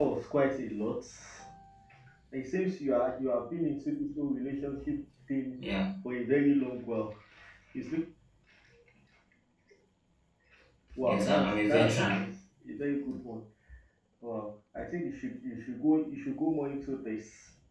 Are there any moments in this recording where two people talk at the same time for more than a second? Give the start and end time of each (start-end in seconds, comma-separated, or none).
11.0-12.3